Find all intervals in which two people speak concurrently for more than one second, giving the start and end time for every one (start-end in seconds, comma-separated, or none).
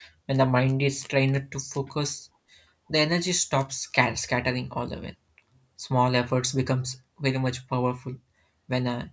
none